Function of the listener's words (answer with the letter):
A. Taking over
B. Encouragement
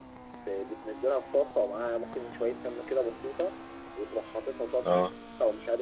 B